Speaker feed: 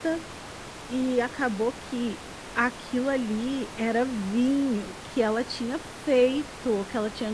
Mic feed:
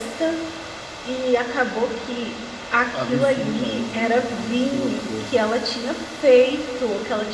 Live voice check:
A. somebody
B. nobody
A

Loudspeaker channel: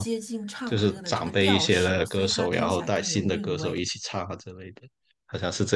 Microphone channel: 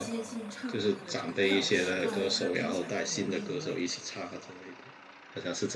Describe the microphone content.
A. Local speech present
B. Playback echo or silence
A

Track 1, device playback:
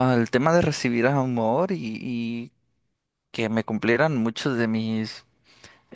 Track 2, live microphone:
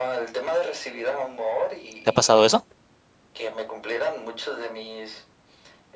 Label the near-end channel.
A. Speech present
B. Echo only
A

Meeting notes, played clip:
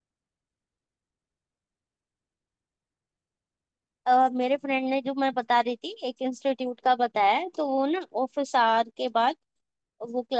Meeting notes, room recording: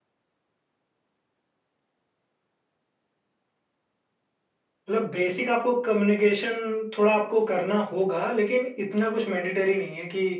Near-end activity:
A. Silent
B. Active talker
B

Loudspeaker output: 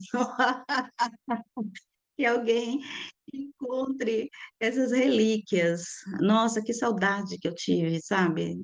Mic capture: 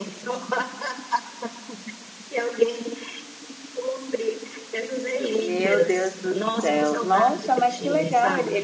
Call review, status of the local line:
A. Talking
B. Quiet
A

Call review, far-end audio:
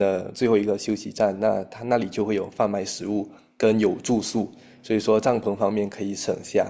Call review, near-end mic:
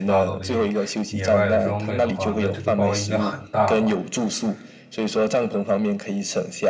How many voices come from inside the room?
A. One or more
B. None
A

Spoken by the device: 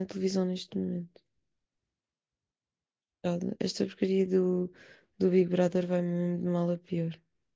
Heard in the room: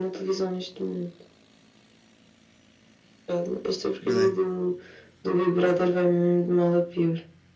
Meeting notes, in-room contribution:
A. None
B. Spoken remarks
B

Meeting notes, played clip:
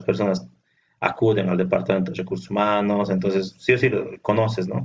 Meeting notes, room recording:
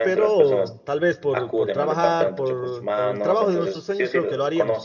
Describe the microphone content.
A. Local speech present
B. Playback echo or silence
A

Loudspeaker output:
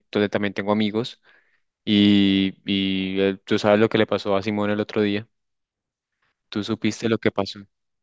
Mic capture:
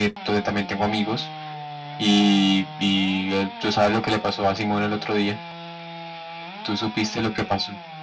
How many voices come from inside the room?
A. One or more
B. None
B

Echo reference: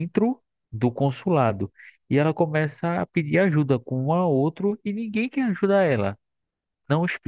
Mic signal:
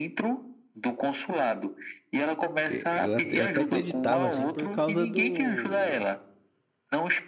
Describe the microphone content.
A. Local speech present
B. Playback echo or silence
A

